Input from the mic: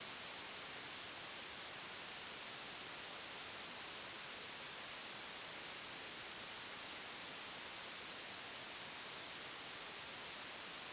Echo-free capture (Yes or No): Yes